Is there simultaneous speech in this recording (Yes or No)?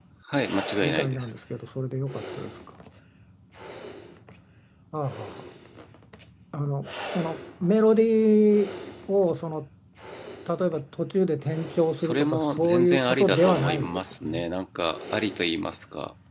Yes